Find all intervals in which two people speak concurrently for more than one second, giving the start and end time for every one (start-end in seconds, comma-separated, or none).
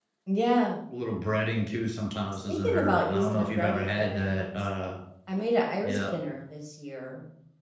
2.5-4.6